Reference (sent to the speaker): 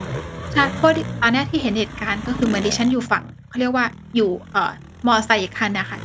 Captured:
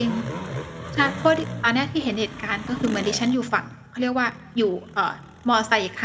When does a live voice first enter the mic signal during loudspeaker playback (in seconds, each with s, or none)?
none